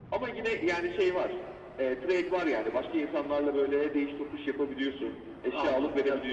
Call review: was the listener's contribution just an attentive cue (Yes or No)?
No